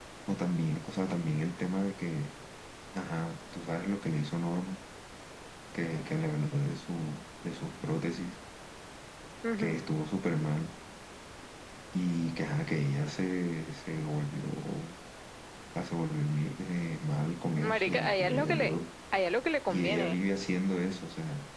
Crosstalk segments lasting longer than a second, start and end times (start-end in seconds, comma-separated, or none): 17.5-18.7